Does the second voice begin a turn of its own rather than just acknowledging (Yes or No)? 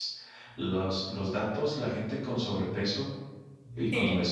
No